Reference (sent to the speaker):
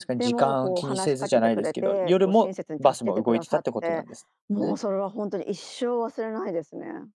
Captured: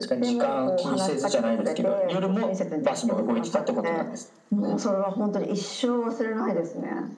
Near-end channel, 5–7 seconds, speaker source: echo only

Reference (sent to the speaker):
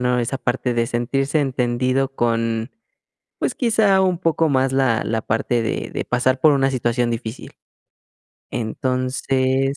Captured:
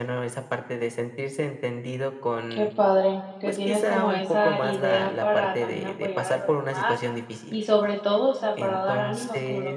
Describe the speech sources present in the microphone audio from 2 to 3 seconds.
both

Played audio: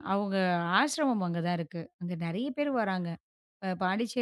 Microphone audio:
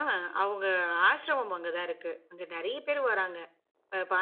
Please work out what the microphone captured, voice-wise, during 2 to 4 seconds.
echo only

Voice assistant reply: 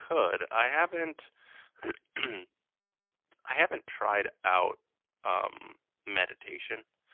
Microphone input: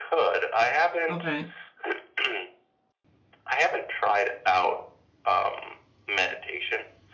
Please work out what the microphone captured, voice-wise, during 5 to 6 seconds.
echo only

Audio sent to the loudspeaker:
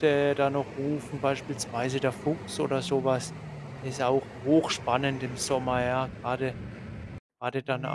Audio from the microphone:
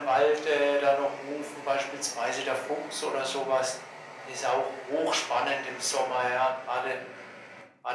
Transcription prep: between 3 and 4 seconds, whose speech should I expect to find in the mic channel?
echo only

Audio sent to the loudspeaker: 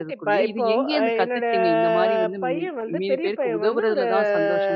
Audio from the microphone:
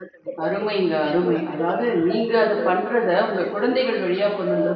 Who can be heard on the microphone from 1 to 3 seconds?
both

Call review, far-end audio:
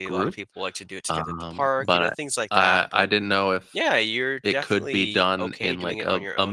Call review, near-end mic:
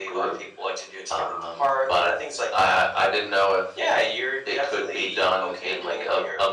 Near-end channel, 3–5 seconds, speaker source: echo only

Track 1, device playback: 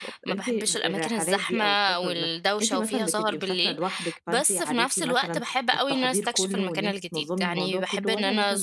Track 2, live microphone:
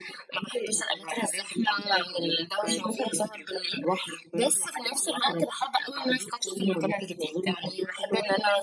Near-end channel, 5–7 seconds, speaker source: echo only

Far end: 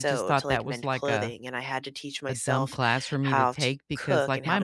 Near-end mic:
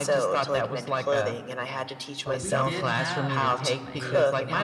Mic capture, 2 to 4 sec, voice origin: both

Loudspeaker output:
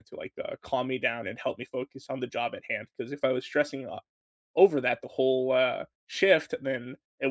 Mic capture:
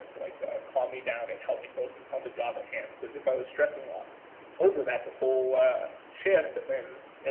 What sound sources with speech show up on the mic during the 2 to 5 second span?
echo only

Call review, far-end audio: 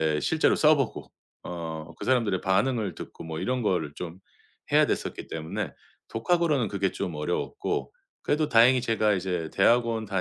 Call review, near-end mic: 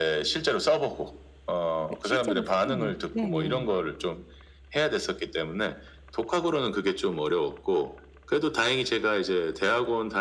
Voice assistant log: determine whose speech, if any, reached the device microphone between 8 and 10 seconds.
echo only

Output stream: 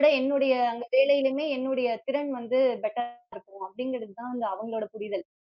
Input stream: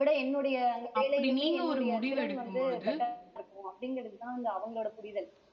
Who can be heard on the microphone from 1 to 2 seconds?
both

